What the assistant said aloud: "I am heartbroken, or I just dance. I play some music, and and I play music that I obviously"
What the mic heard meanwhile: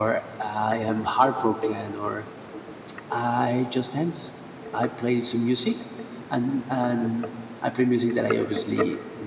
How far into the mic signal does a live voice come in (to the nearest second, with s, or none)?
none